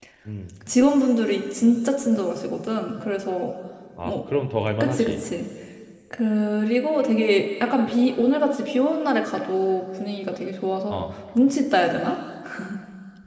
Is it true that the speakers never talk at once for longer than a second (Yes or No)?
Yes